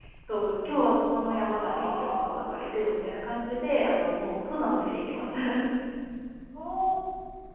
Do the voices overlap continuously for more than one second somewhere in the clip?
Yes, from 1.2 s

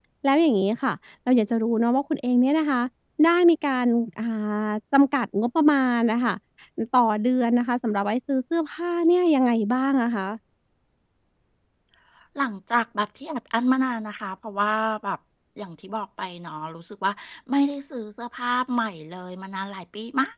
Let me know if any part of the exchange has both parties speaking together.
No

